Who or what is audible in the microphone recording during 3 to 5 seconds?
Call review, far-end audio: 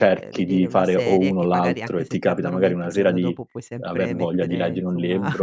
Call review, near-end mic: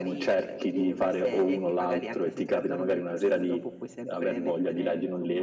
echo only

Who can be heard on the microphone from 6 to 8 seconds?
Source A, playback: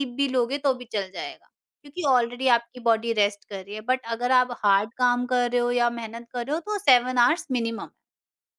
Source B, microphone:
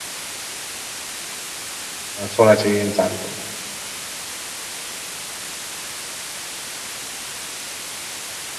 neither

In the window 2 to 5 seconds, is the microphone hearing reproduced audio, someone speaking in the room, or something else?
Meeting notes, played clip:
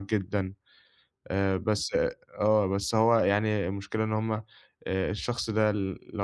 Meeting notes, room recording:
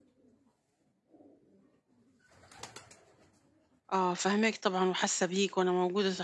user only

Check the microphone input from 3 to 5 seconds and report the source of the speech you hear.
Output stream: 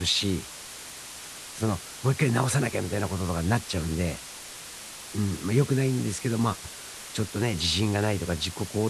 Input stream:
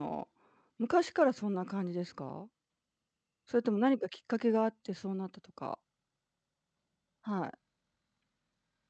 user only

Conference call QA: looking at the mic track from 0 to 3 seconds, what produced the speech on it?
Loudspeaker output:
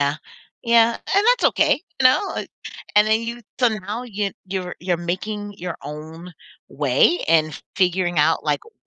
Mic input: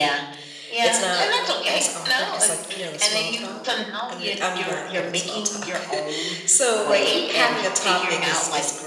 both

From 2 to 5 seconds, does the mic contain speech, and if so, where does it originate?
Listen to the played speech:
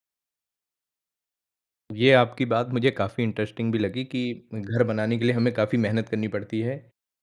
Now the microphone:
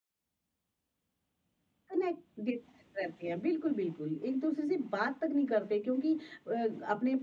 user only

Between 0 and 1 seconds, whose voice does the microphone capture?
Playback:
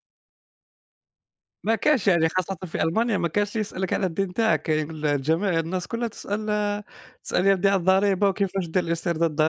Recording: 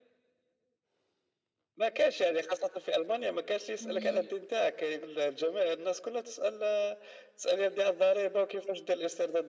neither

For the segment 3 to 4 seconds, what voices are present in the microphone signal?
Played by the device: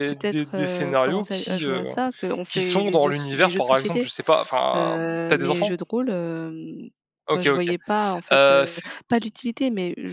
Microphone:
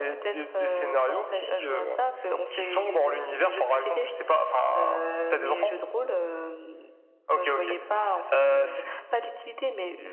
echo only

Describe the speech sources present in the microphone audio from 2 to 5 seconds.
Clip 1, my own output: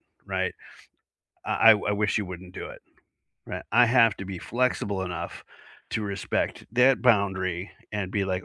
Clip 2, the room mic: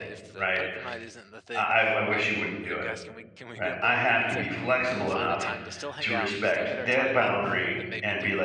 both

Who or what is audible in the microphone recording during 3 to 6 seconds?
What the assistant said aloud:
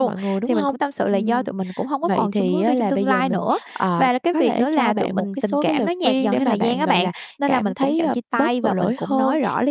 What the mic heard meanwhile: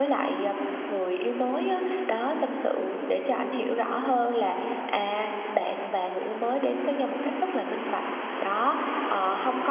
user only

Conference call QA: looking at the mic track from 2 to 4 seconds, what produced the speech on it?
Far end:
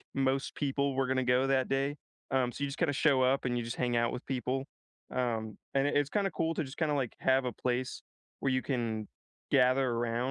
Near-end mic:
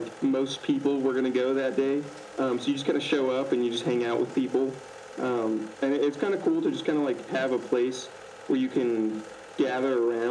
echo only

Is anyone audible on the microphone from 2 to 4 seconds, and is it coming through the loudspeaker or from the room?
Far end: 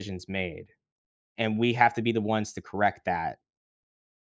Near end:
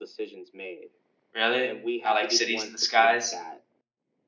both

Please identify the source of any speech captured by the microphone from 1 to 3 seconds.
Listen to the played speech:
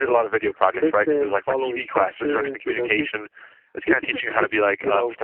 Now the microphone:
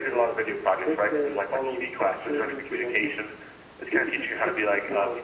echo only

